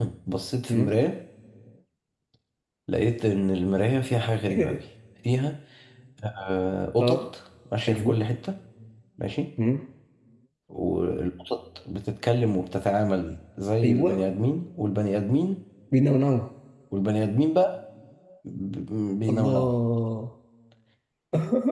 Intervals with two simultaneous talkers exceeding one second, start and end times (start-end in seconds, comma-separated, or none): none